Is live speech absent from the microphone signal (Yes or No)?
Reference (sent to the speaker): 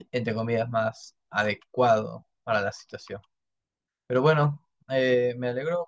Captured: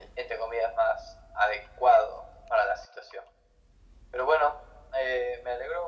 Yes